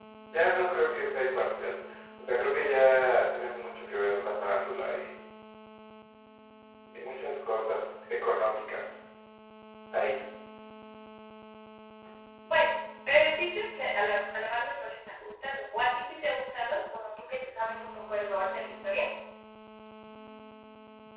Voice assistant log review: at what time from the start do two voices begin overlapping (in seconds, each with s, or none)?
none